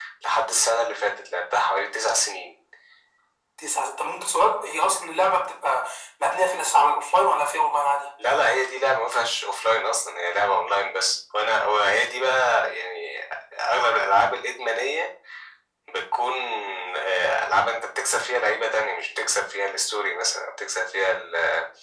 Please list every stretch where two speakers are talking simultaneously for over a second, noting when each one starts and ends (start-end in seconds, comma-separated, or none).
none